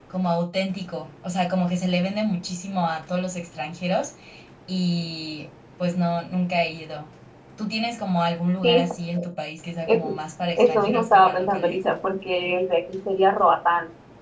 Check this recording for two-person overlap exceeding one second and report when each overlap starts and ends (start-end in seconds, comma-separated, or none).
10.6-11.8